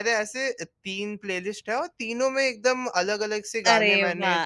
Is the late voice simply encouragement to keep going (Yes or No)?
No